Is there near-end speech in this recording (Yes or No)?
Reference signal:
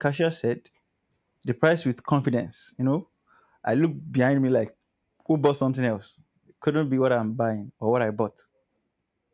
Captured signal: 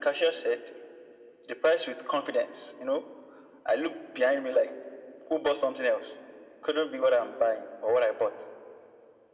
No